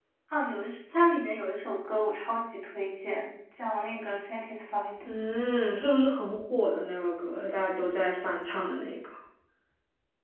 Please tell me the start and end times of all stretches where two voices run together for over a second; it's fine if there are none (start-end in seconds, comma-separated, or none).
none